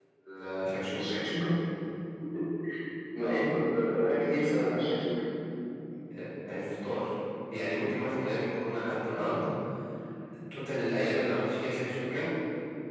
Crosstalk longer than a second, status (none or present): none